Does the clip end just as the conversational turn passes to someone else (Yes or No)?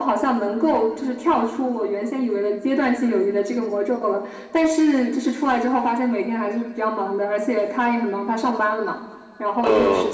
No